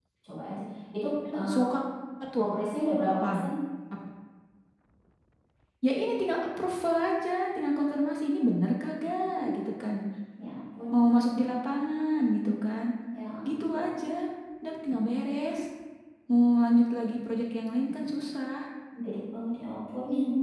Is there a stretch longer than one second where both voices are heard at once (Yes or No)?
No